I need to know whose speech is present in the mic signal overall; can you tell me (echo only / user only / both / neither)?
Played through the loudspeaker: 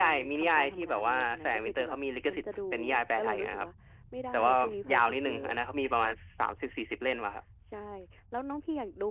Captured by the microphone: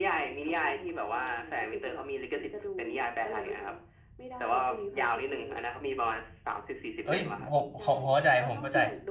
both